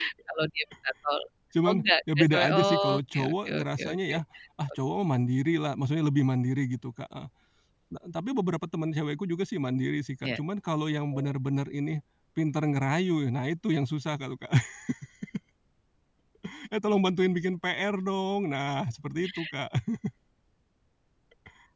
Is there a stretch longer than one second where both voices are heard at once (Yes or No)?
Yes